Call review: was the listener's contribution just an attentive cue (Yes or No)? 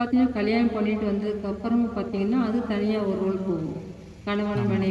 Yes